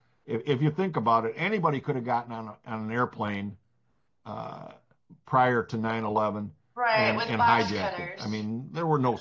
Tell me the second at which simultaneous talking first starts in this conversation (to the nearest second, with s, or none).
7 s